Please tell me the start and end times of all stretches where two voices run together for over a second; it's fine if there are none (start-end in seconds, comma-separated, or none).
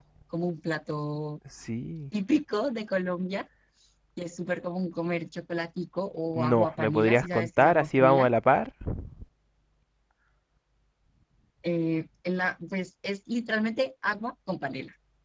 6.3-8.3